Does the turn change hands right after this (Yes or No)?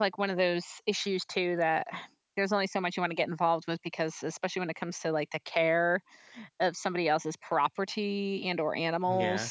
No